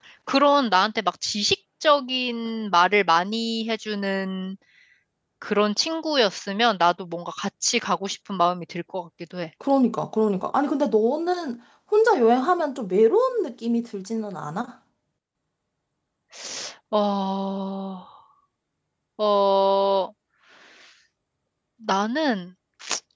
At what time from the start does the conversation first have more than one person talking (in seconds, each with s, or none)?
none